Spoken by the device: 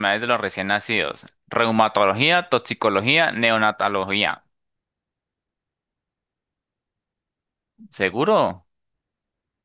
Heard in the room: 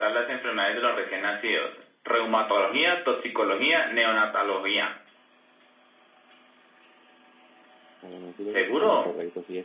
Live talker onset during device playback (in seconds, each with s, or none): 8.0 s